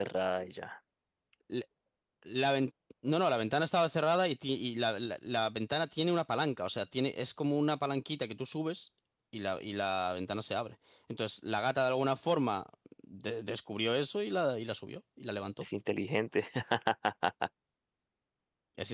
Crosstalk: none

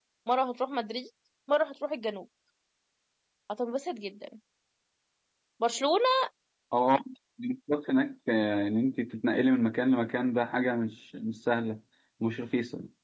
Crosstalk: none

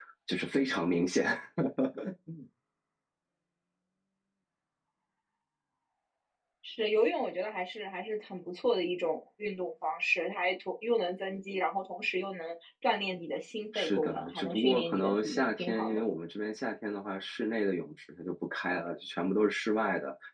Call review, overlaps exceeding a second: present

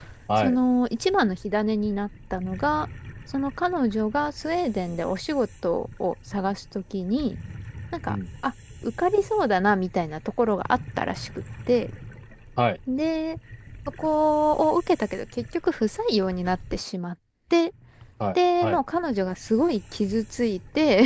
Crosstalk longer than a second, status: none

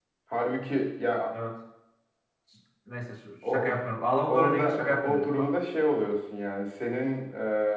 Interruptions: present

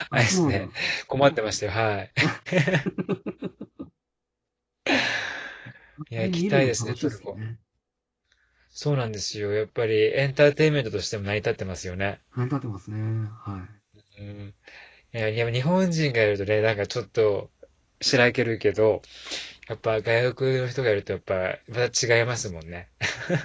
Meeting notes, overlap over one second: present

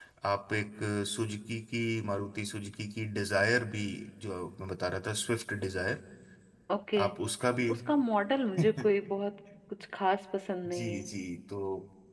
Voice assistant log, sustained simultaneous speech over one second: none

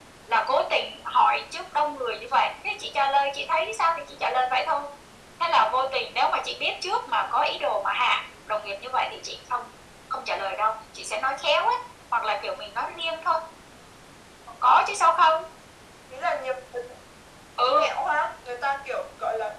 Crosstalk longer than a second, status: none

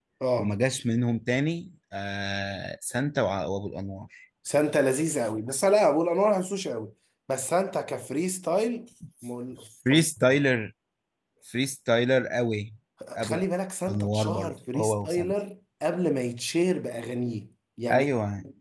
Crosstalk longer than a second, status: present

